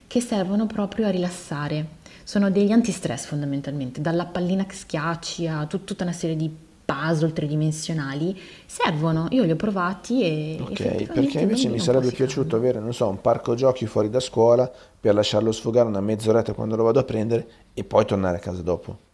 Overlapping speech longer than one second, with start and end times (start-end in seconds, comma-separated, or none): 10.6-12.6